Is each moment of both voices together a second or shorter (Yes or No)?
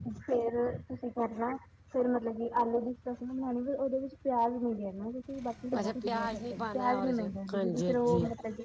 No